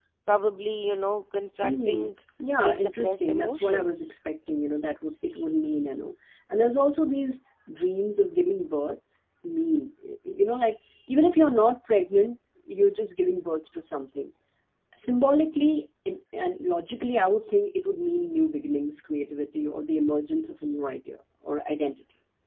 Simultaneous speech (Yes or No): Yes